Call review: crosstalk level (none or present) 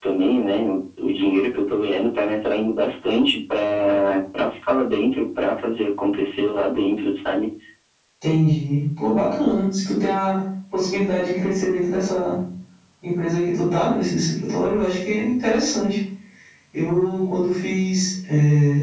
none